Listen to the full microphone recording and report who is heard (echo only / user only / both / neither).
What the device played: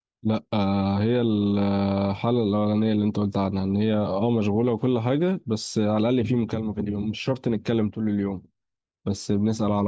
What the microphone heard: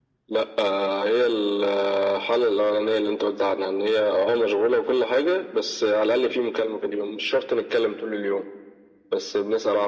echo only